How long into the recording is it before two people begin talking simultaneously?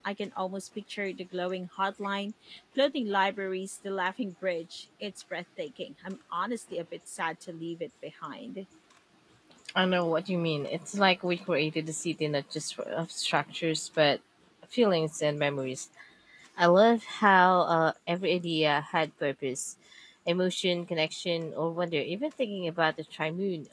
none

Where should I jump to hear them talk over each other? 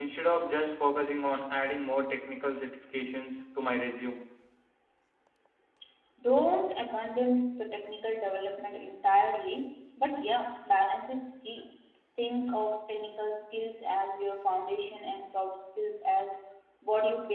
none

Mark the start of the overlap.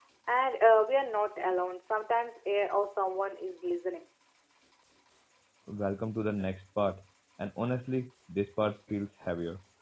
none

